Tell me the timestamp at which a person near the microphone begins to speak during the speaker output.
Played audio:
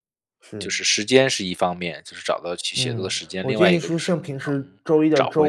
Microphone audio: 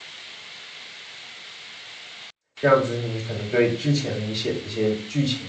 3 s

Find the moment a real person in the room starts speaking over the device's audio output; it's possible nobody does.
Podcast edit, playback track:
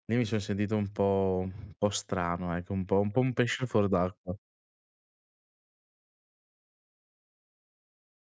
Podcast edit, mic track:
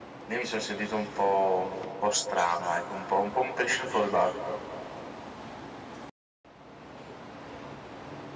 none

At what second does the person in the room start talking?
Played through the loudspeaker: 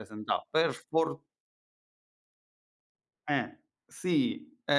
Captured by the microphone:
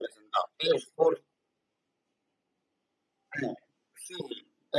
none

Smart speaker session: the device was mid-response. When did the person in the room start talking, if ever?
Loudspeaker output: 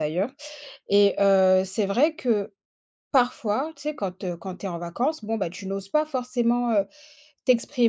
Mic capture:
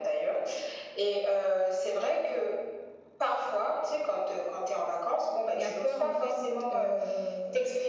6 s

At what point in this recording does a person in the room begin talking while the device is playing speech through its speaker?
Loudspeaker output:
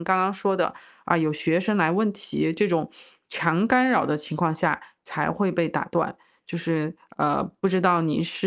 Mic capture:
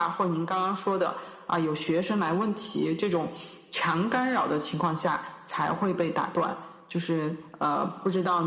none

